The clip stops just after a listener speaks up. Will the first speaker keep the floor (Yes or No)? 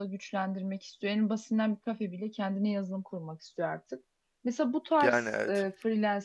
Yes